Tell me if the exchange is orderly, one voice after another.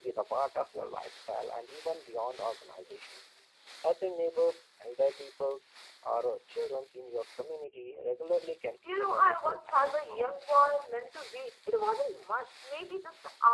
No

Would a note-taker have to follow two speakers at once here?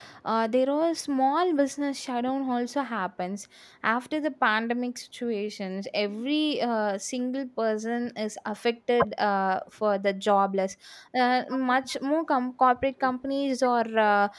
No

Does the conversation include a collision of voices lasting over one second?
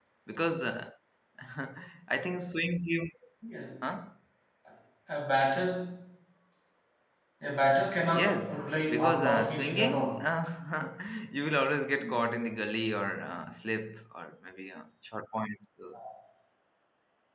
Yes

